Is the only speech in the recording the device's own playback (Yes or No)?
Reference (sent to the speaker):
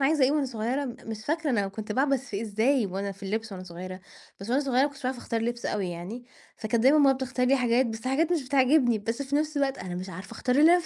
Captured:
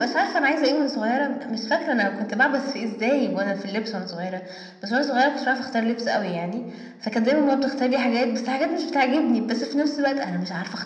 Yes